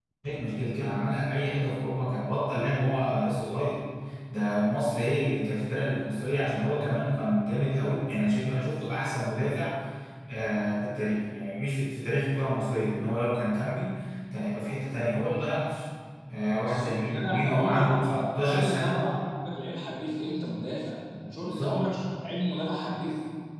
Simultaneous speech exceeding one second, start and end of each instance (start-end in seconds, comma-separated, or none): 16.5-19.0